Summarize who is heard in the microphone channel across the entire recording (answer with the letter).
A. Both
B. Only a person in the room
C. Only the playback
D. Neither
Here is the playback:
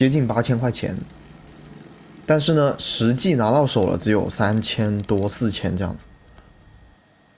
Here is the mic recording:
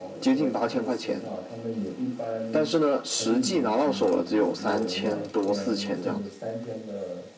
A